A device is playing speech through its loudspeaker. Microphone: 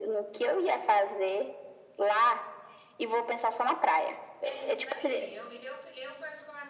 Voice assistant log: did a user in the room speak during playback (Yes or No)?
Yes